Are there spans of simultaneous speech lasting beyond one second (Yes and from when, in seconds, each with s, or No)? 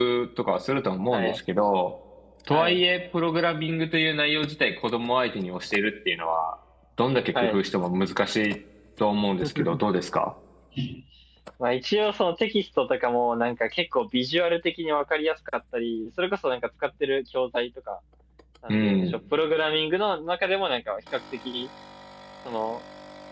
No